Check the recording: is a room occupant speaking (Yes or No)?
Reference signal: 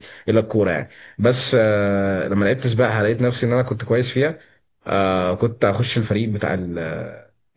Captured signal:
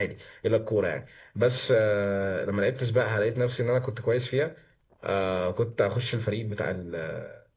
No